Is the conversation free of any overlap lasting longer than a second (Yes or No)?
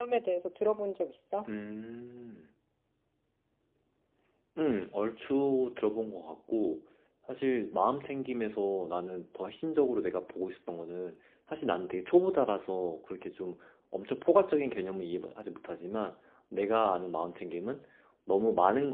Yes